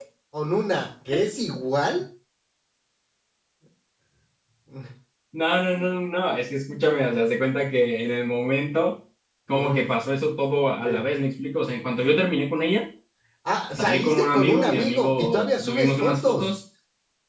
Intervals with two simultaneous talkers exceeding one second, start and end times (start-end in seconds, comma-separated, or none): 13.8-16.5